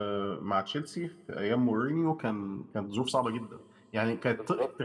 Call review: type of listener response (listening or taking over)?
listening